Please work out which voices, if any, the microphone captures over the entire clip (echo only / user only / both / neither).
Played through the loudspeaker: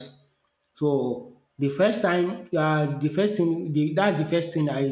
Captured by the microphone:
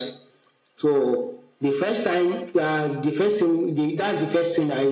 echo only